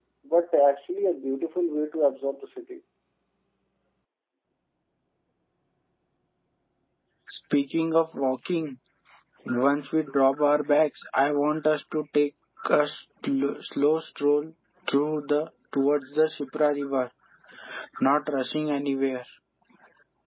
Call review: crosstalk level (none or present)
none